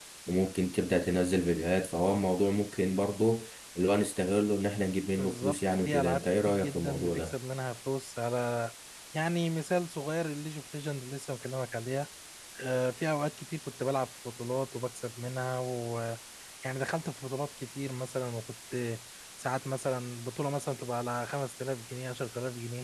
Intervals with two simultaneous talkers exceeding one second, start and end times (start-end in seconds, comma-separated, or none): 5.2-7.3